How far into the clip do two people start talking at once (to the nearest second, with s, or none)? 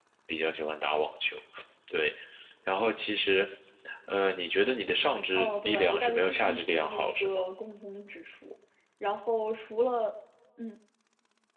5 s